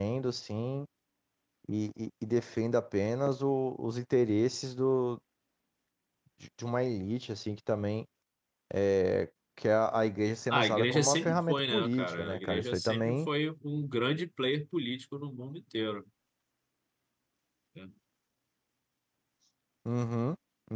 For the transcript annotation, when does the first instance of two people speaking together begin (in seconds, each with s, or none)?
10.5 s